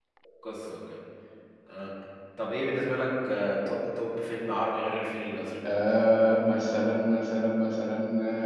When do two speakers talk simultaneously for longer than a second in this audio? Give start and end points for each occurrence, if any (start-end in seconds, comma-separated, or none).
none